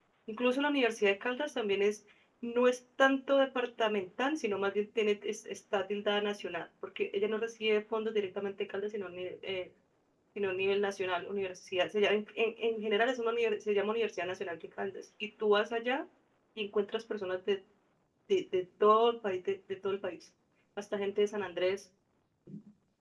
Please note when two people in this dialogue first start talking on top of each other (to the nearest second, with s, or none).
none